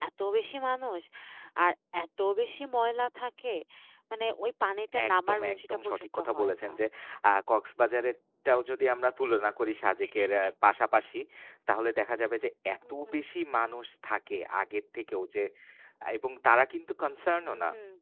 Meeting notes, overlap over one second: present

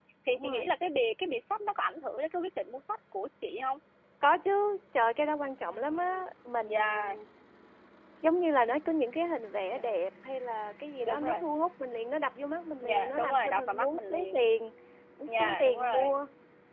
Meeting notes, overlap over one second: present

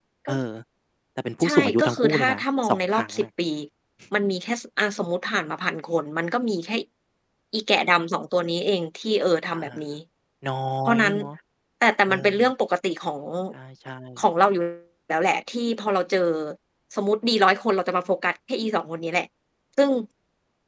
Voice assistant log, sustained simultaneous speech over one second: present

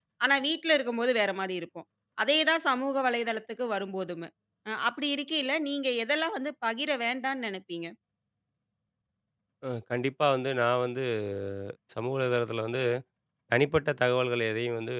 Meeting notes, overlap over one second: none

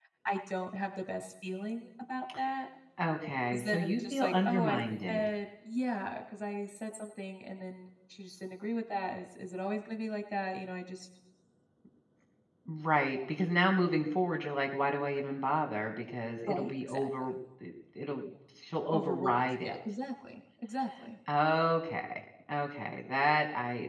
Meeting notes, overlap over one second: present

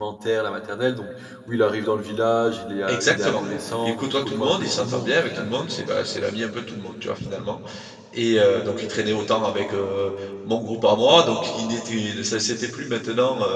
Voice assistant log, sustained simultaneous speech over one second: present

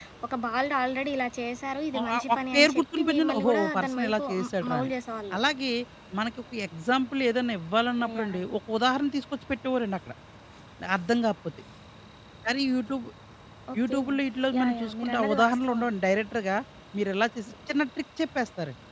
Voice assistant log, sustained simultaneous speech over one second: present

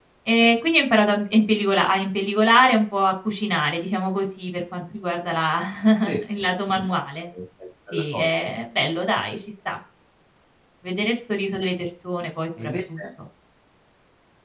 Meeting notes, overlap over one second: none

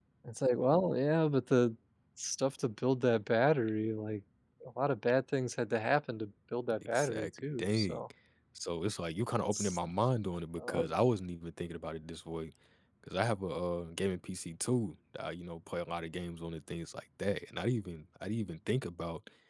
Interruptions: present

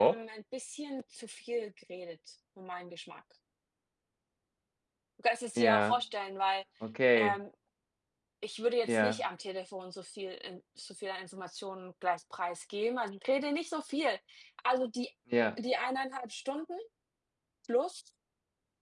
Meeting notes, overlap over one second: none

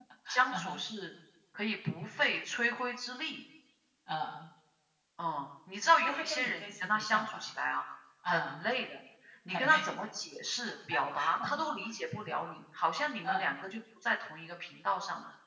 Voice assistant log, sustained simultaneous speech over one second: present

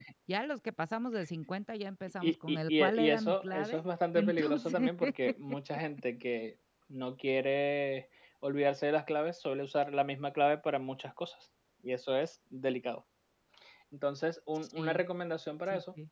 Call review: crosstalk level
present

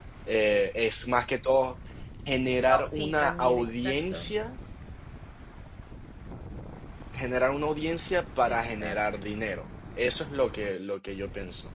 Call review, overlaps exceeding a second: present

